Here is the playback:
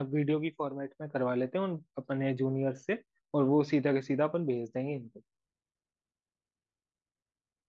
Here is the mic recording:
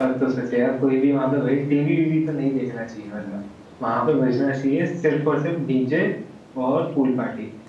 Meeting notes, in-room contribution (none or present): present